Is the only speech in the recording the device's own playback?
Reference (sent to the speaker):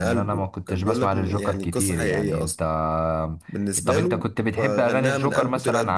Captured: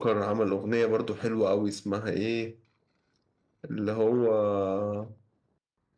No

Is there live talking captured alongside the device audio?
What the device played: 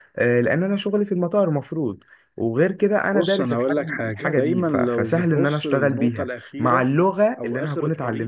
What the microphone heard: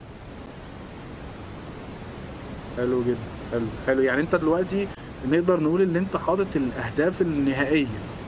Yes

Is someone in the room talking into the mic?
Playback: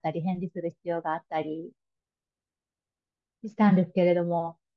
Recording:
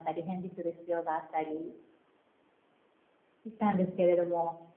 No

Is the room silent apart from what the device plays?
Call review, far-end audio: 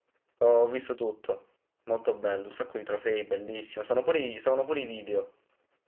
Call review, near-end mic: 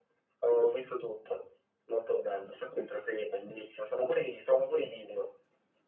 Yes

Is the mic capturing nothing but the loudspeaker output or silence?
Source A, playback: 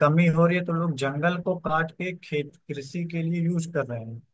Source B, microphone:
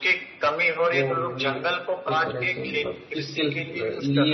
No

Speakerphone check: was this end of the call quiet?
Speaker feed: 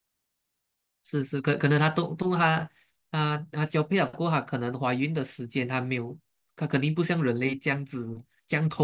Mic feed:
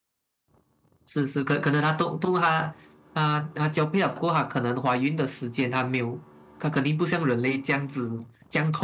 Yes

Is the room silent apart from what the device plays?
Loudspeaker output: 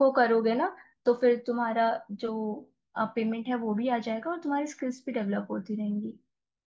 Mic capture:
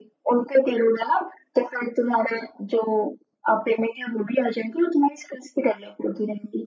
Yes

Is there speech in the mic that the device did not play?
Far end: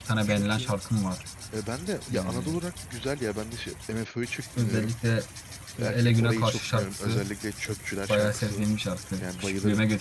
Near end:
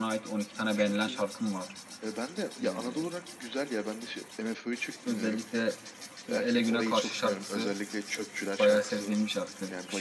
No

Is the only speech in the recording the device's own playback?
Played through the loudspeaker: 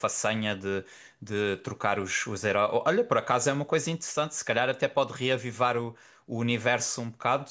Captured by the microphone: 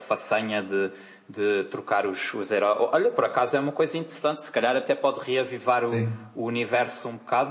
No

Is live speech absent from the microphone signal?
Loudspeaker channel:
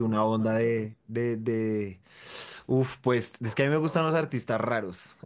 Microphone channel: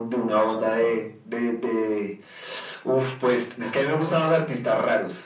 Yes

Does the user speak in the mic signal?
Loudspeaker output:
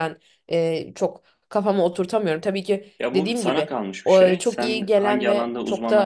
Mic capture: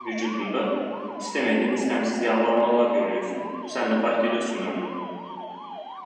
Yes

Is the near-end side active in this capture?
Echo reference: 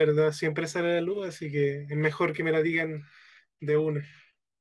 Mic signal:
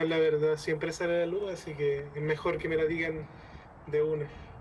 No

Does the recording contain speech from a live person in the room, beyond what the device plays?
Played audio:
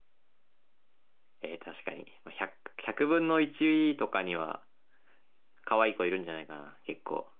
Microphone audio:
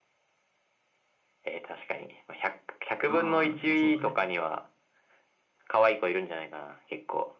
Yes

